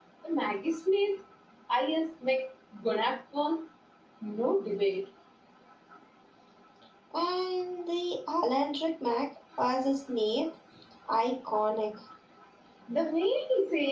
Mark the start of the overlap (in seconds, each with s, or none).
none